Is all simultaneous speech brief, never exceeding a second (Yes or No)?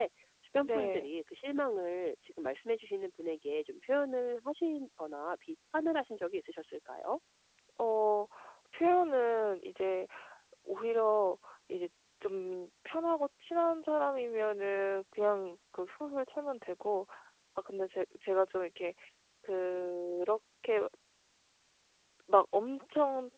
Yes